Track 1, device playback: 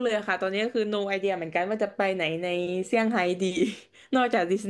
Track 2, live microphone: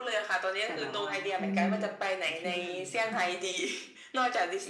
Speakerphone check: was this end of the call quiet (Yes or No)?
No